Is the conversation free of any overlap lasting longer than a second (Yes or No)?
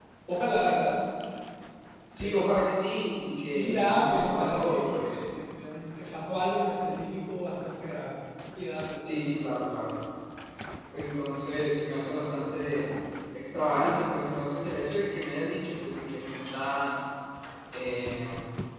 No